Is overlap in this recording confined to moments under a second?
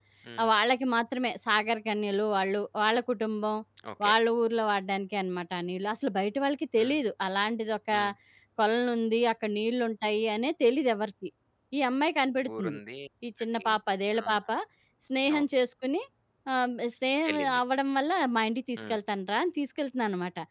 Yes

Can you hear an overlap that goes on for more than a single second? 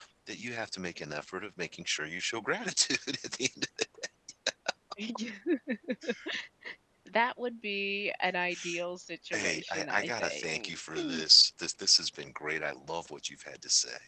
Yes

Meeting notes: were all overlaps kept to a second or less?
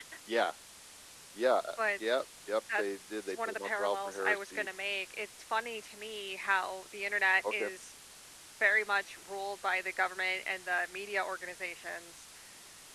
No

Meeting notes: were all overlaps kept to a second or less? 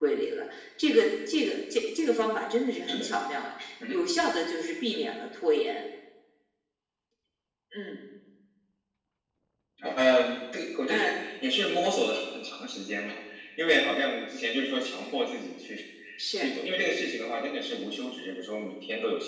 Yes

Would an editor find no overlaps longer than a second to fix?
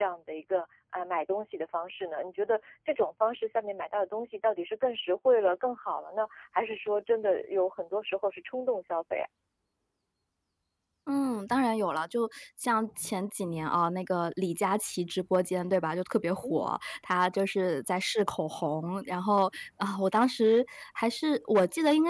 Yes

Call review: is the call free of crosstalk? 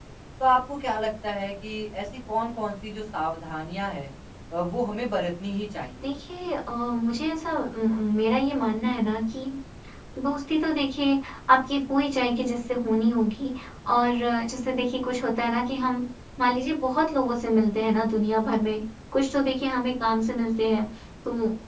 Yes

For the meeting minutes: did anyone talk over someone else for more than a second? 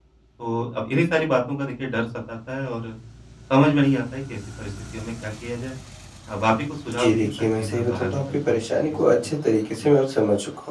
Yes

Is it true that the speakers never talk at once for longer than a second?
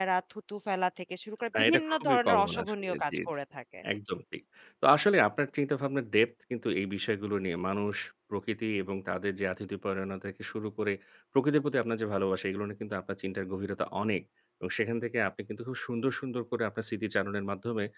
No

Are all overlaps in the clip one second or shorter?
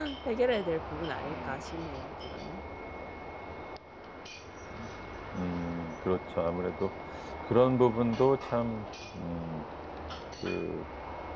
Yes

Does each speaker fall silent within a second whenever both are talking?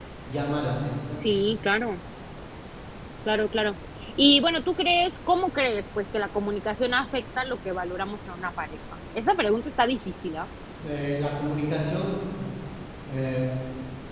Yes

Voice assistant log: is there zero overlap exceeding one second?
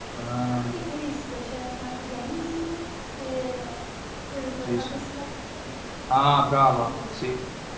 Yes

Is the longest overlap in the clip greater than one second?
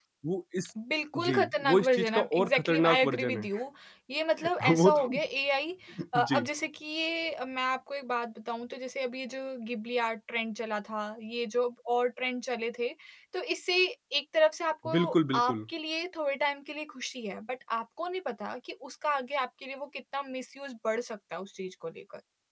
Yes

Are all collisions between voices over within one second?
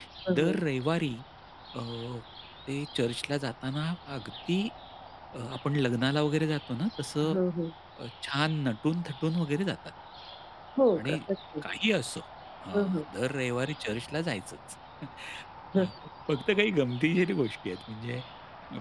Yes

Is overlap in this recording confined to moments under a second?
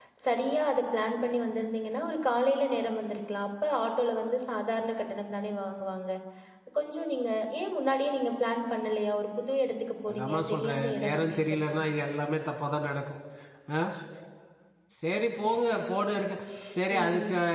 No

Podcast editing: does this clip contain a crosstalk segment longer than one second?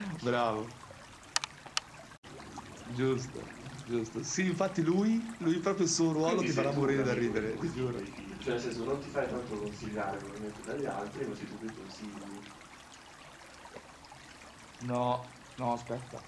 Yes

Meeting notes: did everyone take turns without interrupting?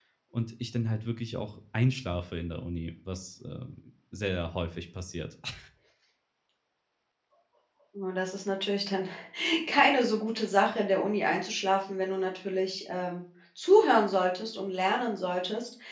Yes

